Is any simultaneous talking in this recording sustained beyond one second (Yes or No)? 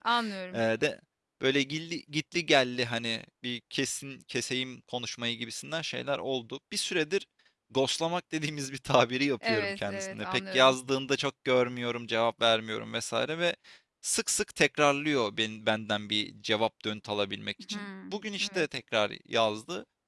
Yes